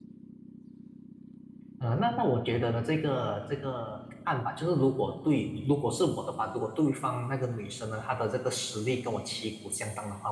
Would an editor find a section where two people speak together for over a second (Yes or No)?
No